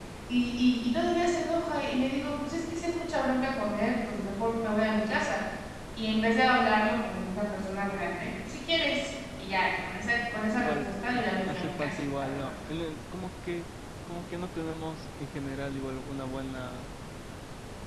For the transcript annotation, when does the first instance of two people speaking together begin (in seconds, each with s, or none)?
10.5 s